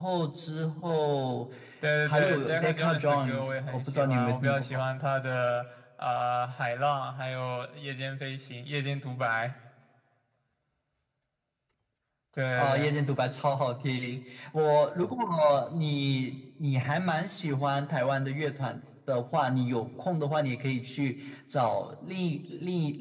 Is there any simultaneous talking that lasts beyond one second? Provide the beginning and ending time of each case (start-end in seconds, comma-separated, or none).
2.1-4.8